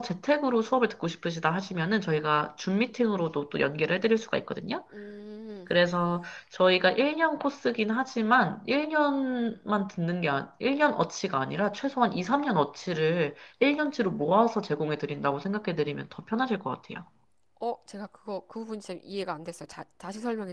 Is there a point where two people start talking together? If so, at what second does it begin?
none

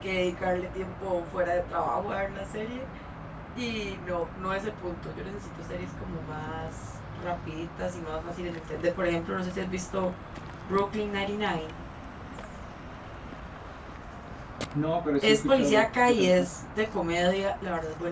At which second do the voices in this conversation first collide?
15 s

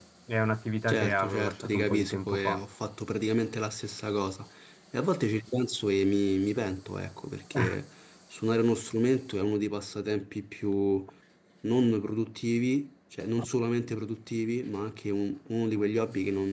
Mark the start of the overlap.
1 s

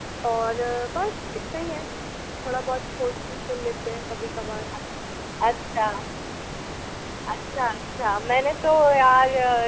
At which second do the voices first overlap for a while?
none

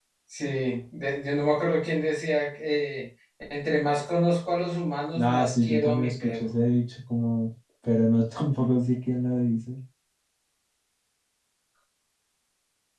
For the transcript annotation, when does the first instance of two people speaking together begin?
5 s

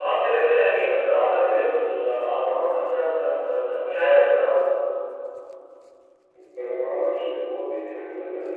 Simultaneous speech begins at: none

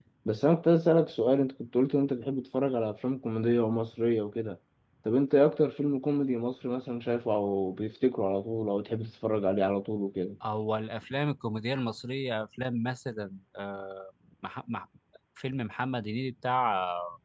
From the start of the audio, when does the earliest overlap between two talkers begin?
none

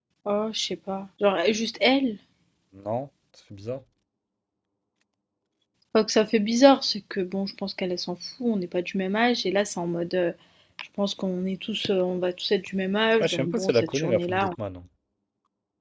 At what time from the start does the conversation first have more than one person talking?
13 s

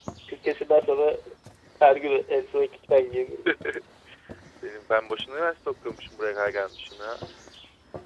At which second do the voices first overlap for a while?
none

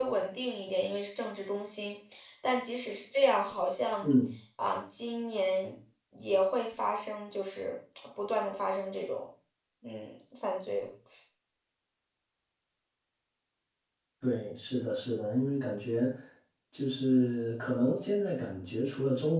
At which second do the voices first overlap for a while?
none

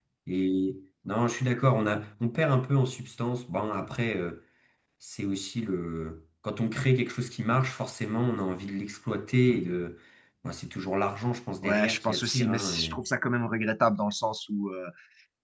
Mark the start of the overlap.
12 s

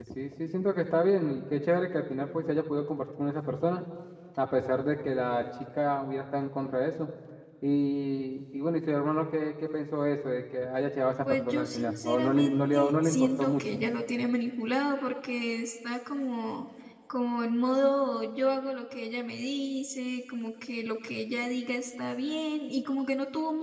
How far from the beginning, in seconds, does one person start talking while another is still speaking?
11 s

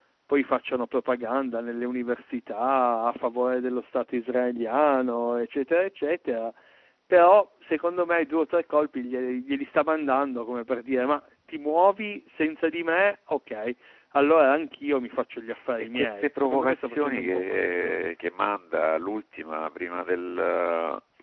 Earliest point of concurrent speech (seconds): 16 s

